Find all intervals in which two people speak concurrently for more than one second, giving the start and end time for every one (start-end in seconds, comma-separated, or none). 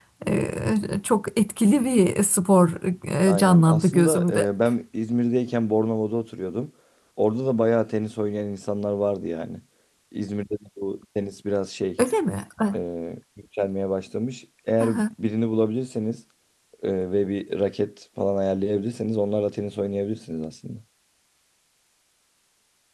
3.3-4.5